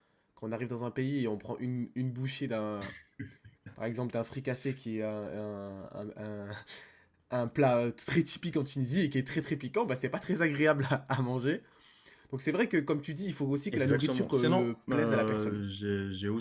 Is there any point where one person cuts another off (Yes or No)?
Yes